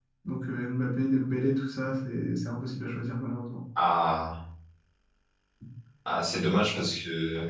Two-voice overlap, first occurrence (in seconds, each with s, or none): none